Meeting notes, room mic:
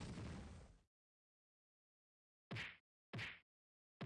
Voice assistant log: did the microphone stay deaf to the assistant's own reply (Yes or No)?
Yes